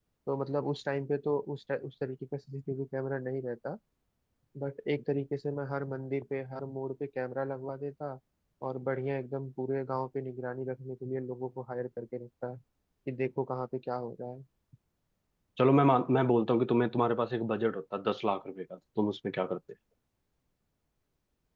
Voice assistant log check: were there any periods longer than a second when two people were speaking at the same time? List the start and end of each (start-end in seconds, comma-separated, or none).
none